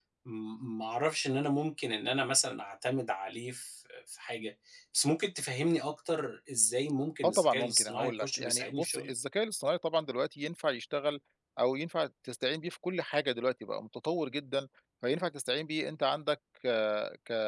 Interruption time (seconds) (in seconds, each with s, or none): 7.2 s